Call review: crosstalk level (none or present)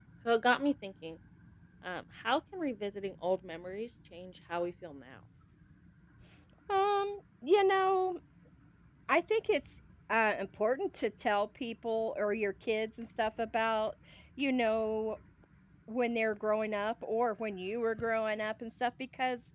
none